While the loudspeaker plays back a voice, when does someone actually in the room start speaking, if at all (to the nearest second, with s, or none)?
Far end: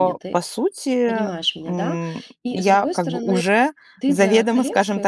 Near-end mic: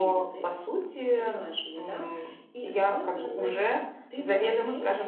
none